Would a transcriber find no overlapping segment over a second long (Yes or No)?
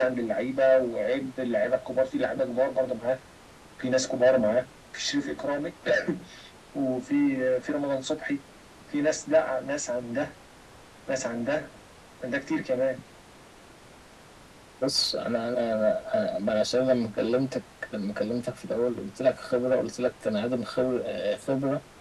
Yes